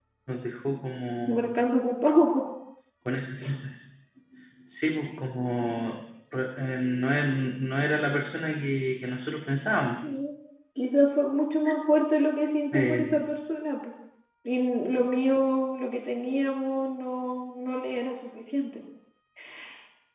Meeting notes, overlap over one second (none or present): none